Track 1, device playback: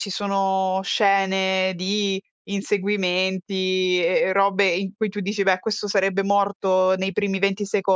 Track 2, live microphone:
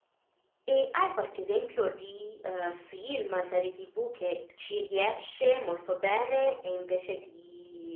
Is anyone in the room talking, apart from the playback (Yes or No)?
Yes